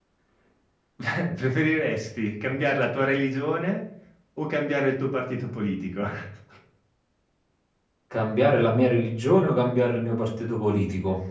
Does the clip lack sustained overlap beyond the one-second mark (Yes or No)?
Yes